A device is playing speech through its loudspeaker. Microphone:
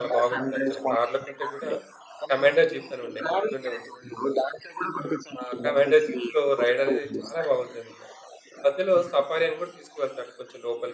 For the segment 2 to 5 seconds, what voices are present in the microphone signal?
both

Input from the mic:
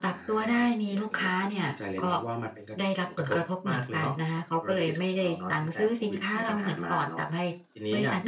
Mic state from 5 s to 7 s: echo only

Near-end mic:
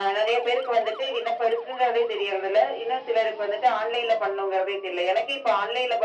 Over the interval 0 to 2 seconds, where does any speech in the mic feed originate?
echo only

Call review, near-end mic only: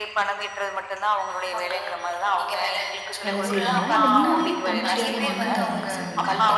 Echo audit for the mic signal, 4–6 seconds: both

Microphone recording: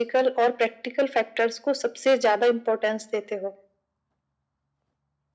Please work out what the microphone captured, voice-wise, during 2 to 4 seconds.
echo only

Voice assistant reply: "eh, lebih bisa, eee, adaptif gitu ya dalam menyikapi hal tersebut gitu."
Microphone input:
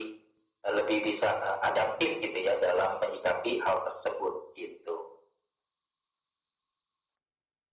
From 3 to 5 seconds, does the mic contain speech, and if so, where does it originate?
echo only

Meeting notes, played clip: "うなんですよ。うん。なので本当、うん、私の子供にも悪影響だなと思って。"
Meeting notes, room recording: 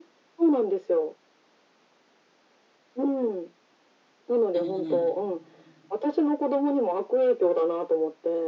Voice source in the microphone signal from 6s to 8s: echo only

